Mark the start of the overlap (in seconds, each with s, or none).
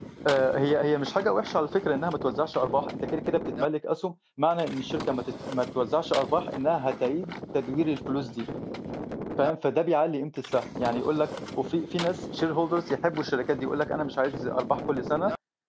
none